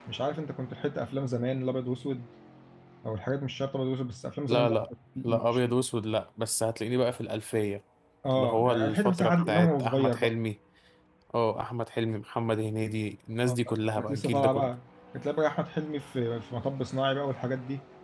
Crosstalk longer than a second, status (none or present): present